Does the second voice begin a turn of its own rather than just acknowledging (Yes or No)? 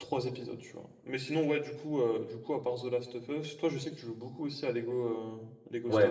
Yes